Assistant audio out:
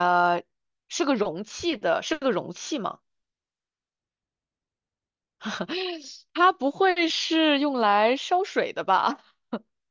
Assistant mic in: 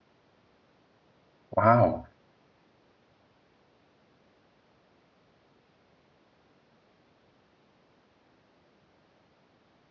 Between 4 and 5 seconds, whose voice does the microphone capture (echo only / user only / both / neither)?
neither